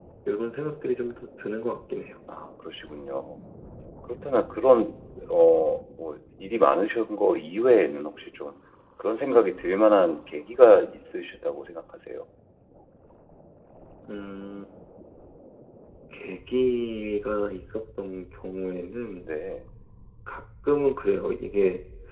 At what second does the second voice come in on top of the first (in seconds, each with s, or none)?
none